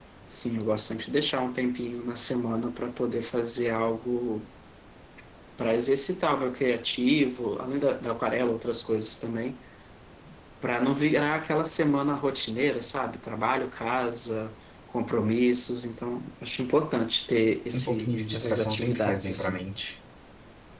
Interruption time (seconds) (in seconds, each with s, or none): 17.7 s